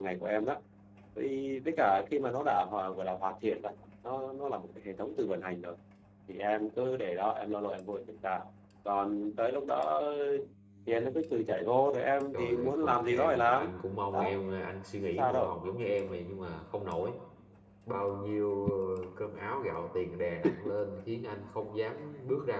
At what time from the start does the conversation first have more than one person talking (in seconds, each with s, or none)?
12.3 s